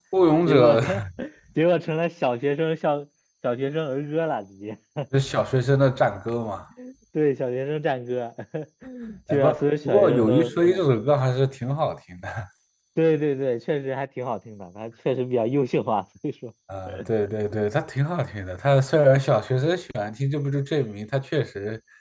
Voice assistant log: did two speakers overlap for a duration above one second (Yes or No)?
Yes